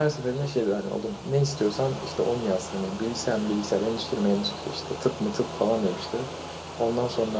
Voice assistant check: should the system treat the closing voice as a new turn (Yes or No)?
No